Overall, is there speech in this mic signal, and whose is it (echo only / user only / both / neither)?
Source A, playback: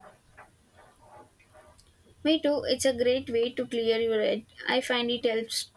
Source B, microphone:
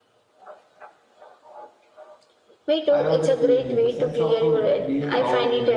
both